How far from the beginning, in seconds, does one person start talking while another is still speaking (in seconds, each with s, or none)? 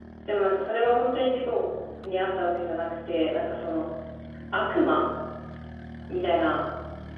none